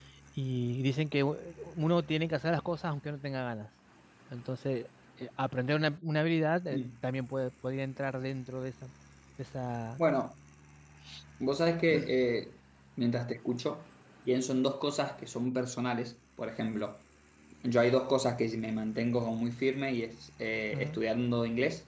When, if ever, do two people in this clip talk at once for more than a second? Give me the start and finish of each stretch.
none

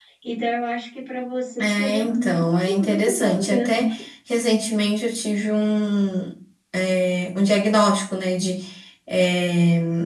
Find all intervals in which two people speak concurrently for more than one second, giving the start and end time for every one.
1.6-3.9

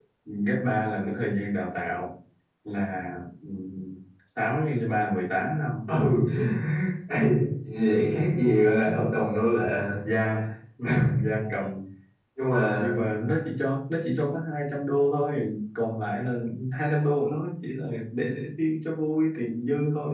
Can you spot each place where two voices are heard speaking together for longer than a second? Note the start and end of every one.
none

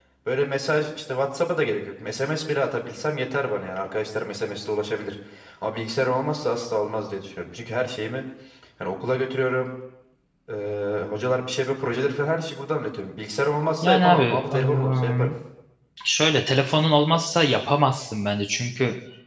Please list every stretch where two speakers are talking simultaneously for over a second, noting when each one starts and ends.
13.8-15.3

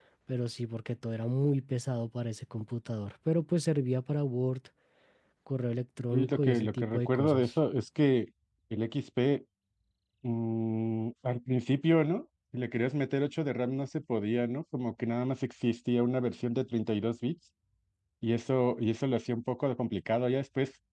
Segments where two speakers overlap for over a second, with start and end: 6.1-7.5

